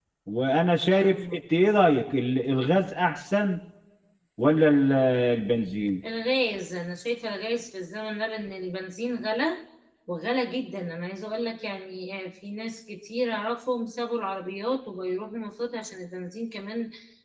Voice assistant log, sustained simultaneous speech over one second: none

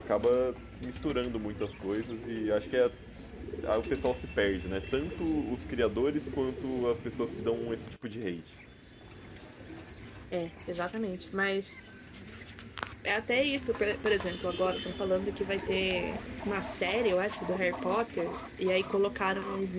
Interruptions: none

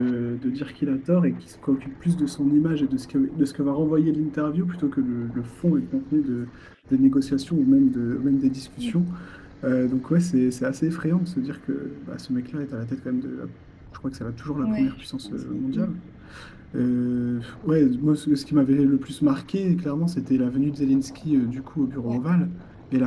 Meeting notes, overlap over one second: present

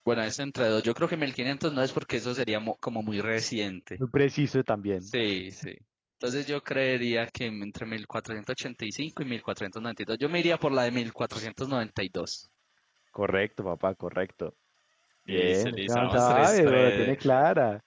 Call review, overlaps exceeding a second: present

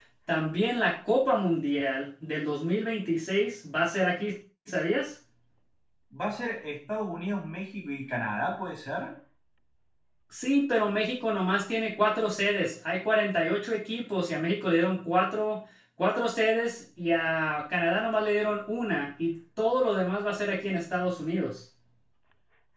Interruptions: none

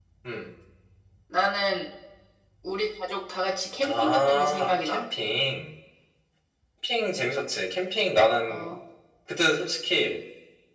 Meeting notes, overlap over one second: present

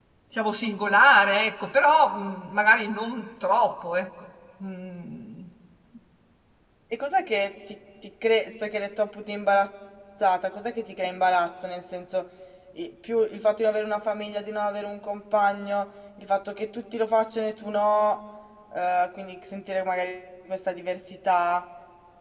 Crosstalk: none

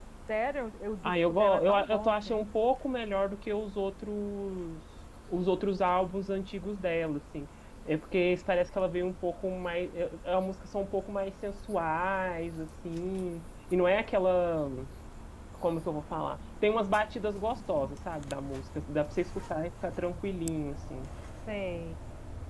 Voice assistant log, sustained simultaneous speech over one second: present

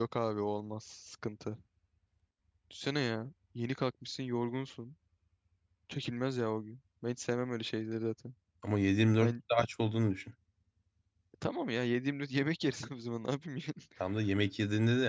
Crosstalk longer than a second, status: none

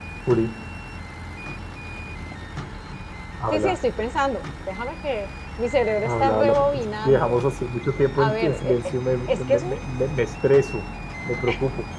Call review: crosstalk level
present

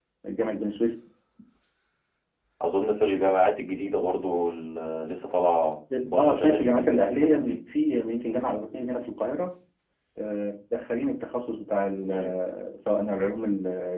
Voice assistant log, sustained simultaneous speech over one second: present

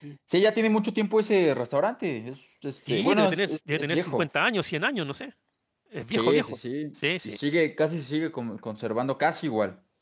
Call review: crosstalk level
present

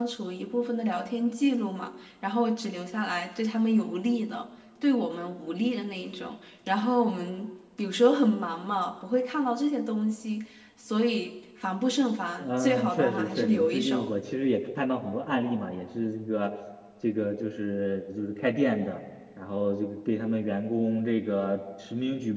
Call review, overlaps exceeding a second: present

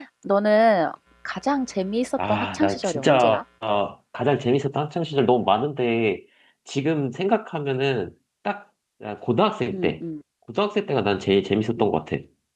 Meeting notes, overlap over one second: present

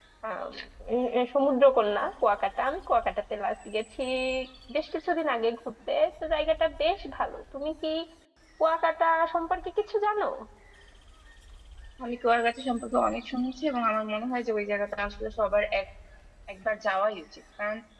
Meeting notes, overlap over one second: none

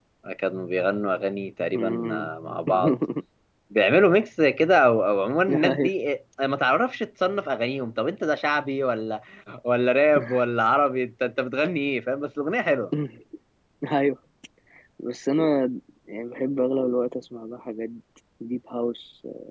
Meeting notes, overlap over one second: none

